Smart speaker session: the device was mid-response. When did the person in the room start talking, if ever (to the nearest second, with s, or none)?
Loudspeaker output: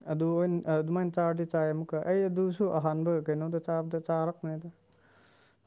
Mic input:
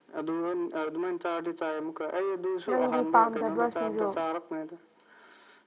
3 s